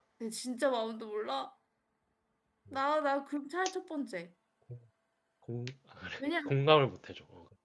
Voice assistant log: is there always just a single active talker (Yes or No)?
Yes